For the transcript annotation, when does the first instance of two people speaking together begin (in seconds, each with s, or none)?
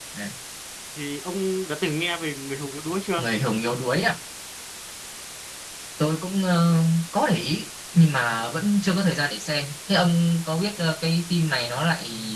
none